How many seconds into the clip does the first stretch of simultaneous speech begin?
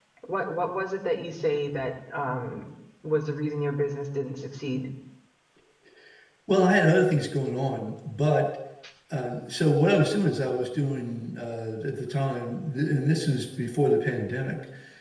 none

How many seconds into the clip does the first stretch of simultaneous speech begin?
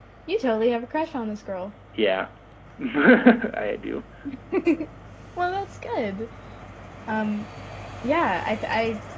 none

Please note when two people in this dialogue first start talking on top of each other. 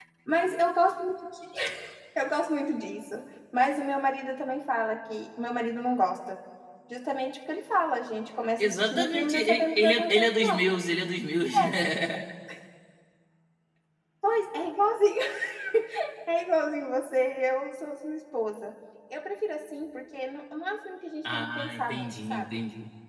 8.6 s

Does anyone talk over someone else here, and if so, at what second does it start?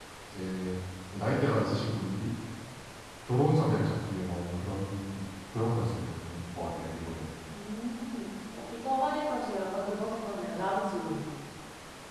none

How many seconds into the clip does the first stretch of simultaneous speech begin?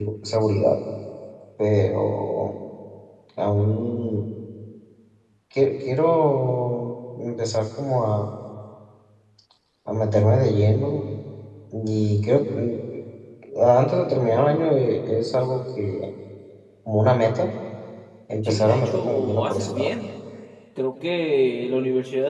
18.4 s

